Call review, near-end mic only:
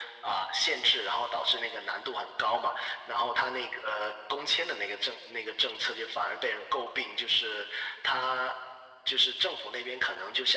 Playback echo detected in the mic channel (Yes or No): Yes